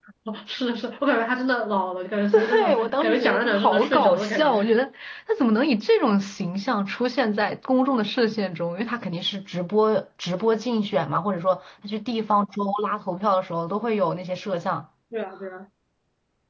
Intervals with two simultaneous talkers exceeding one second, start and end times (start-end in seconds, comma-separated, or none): 2.3-4.6